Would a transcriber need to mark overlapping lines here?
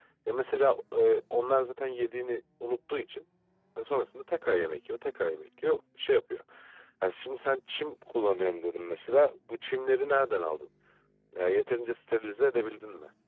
No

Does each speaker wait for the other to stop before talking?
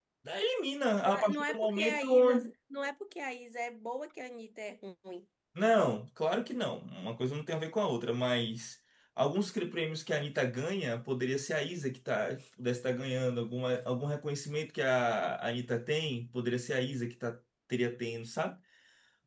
No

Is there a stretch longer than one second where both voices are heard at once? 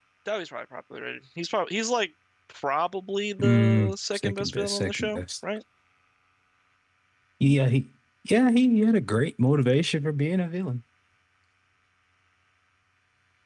Yes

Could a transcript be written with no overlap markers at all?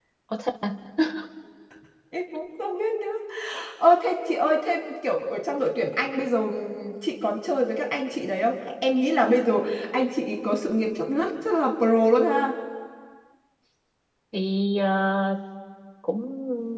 Yes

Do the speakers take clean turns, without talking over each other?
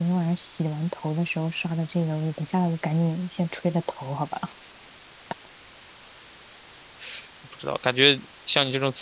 Yes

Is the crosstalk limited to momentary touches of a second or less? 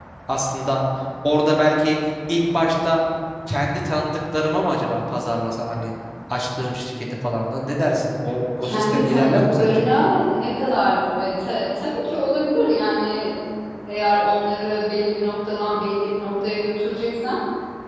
No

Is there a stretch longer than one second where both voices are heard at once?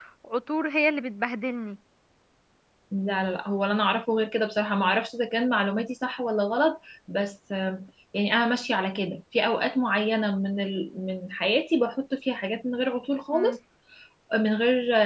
No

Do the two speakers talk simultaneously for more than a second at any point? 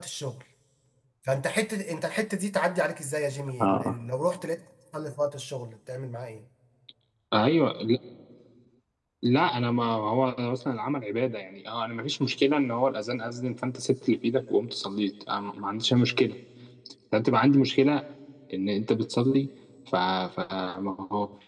No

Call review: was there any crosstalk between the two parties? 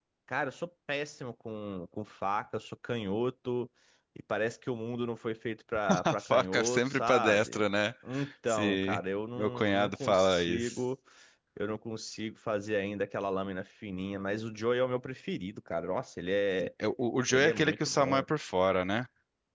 Yes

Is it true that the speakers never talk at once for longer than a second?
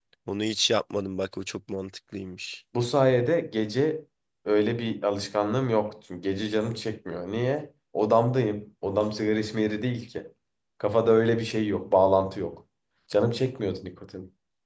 Yes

